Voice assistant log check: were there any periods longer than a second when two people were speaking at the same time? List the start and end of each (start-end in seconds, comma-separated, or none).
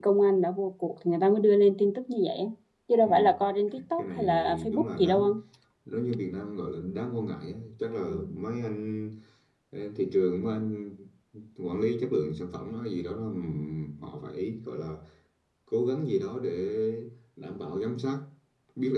3.8-5.3